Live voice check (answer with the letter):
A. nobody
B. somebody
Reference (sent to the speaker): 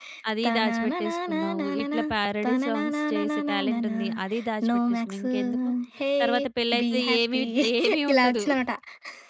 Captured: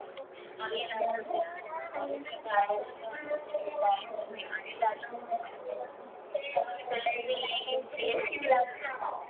A